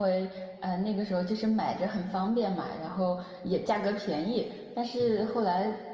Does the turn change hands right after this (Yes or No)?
No